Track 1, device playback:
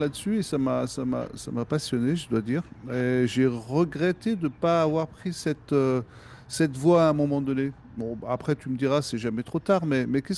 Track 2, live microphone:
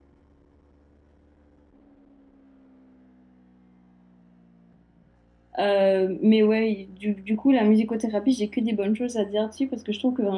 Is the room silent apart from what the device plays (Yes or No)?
No